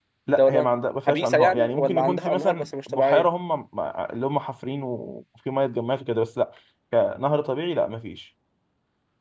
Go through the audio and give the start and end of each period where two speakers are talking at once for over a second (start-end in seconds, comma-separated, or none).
1.1-3.3